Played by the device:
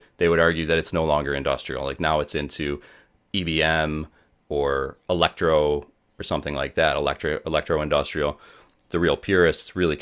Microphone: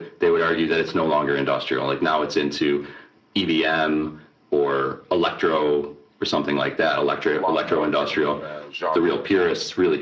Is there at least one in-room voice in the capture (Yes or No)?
Yes